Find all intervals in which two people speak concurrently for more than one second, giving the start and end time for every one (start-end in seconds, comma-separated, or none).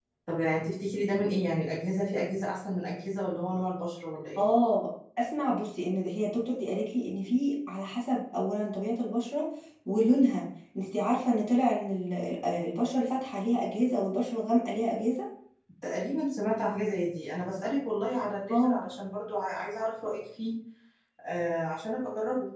none